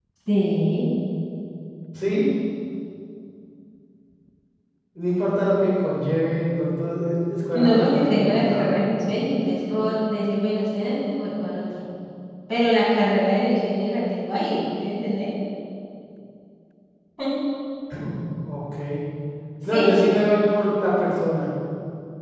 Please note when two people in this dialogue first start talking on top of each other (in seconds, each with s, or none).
7.5 s